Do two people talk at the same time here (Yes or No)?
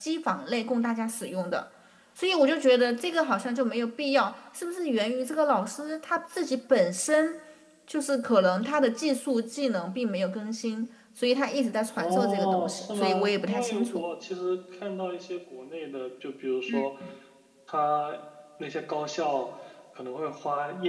Yes